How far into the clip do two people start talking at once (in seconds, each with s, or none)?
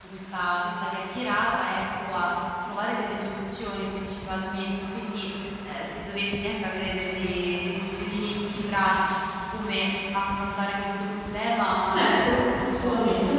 11.9 s